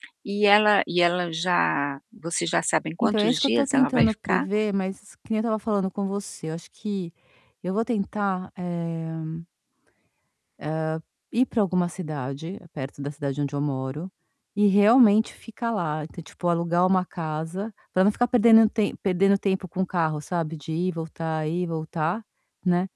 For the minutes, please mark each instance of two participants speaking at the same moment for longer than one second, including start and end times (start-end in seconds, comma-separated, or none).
3.0-4.5